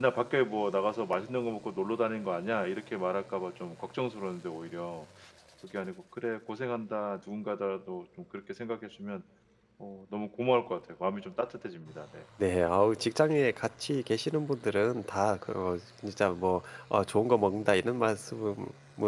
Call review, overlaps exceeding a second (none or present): none